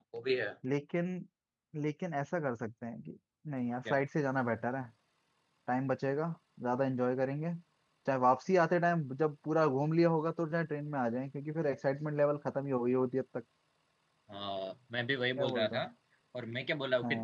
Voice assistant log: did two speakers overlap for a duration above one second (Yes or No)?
No